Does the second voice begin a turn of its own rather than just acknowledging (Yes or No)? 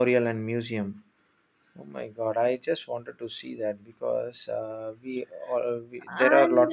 Yes